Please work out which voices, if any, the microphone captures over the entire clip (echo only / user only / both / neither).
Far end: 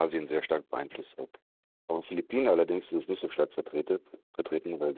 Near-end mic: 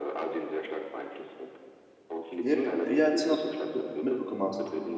both